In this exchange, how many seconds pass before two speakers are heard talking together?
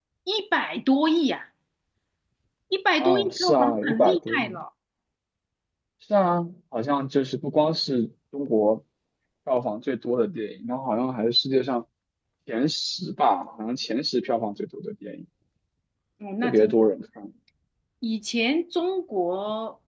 3.0 s

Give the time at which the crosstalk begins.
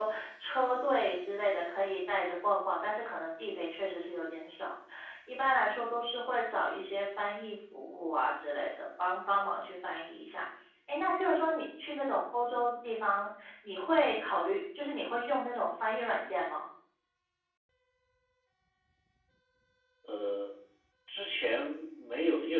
none

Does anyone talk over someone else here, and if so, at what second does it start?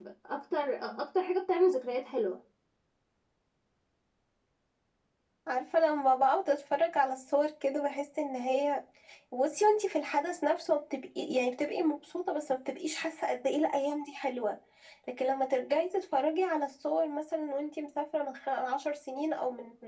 none

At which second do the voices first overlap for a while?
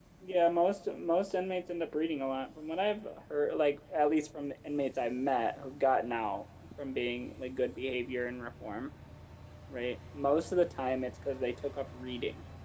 none

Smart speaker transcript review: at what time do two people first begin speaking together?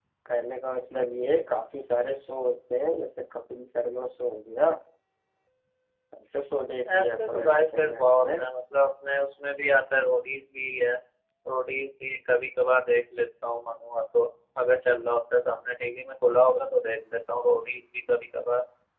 6.9 s

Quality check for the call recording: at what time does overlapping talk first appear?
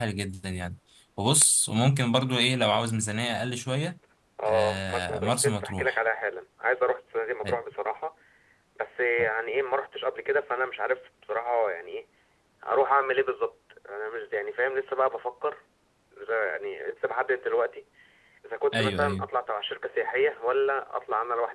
4.5 s

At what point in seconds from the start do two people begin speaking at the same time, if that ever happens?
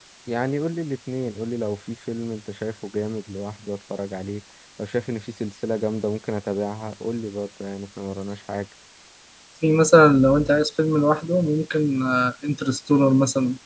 none

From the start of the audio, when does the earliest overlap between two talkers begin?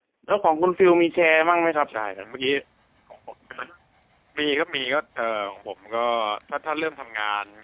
none

